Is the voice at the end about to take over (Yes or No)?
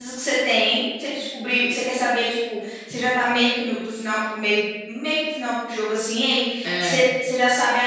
No